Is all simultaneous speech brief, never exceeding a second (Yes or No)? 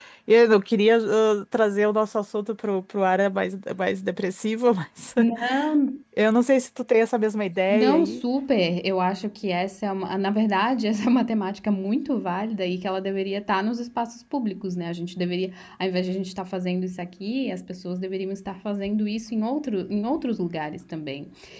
Yes